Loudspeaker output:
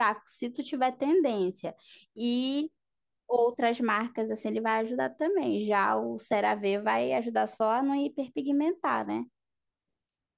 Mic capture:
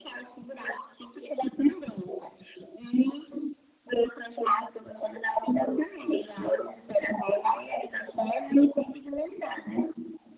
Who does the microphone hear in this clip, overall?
echo only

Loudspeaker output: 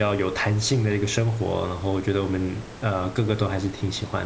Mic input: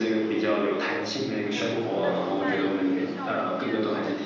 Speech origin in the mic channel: both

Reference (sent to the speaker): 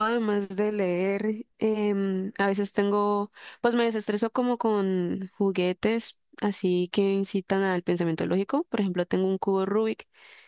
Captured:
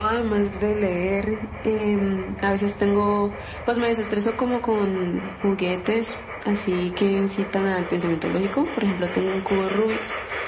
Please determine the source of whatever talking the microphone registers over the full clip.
echo only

